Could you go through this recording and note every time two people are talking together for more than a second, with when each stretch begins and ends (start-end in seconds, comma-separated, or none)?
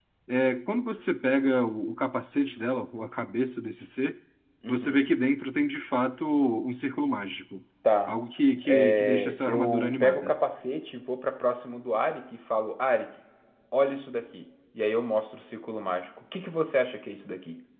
8.6-10.3